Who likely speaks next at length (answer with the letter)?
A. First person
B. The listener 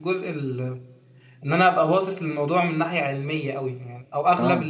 A